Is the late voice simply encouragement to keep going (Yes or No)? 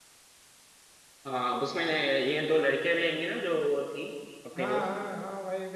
No